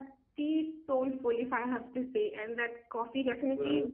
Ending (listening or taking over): listening